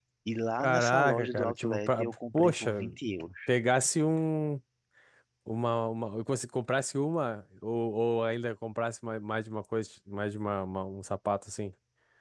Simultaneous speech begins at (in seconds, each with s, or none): 0.6 s